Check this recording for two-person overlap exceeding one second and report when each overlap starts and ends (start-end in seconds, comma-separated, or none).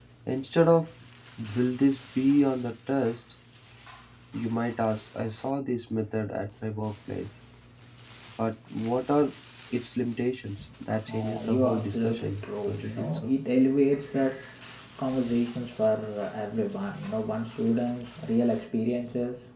11.1-13.3